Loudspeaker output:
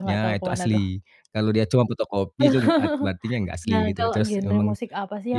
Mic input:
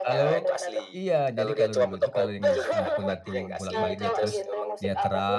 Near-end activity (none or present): present